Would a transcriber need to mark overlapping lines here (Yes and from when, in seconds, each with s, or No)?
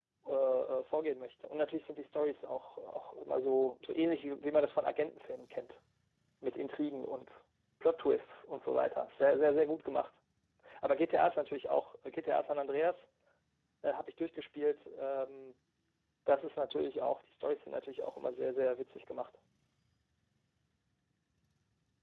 No